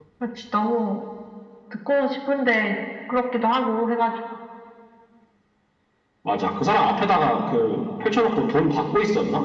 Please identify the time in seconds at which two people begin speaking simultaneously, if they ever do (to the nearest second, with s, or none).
none